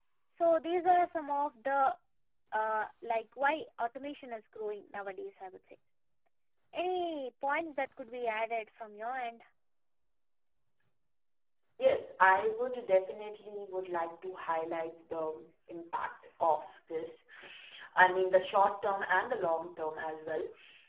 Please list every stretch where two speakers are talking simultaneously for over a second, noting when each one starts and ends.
none

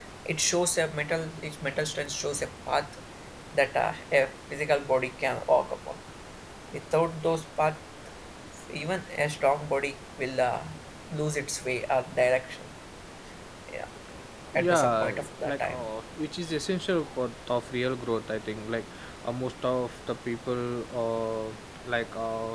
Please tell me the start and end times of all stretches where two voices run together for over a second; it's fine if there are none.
14.6-15.9

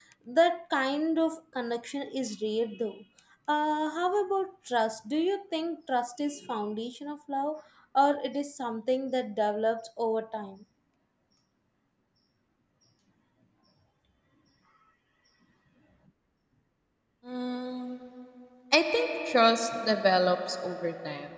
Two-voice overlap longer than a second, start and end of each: none

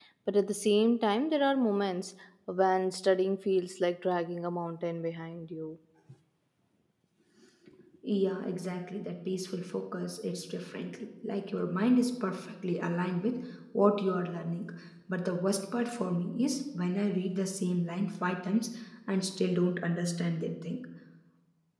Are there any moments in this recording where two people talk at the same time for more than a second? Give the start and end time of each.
none

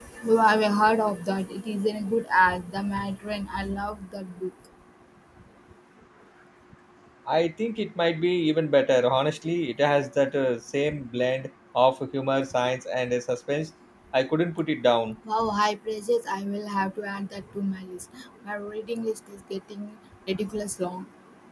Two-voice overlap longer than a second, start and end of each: none

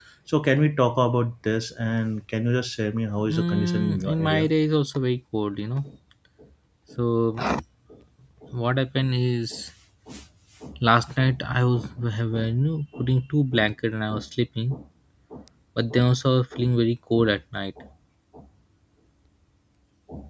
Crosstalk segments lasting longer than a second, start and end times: 3.3-4.5

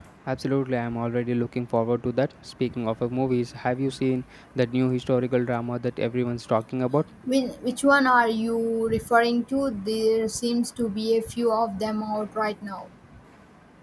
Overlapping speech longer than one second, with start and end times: none

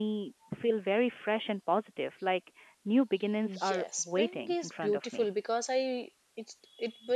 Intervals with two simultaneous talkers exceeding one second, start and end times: 3.7-5.3

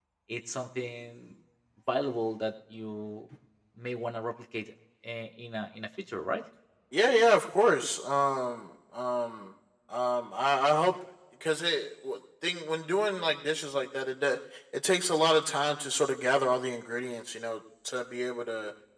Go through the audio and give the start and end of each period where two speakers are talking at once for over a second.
none

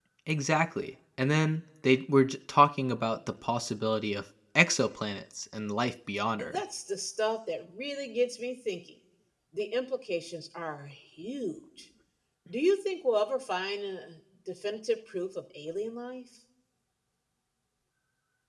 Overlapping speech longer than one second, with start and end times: none

